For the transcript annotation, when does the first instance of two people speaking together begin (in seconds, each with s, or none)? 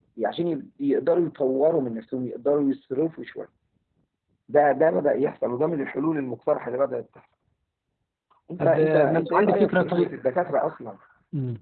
8.6 s